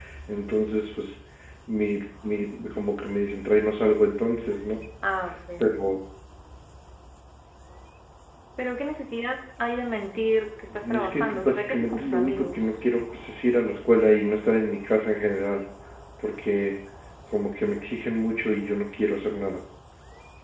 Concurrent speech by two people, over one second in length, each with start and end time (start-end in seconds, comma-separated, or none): 10.7-12.6